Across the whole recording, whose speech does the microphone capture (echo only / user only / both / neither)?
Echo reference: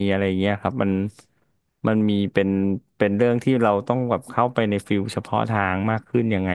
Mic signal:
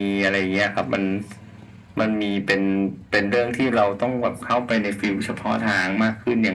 echo only